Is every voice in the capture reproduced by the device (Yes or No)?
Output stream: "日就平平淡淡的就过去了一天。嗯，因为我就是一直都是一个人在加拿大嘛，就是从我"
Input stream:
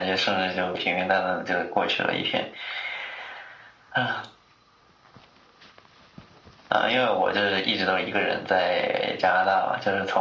Yes